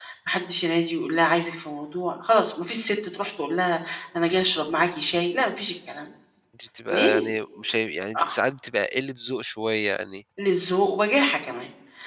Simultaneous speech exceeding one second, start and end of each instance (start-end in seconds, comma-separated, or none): none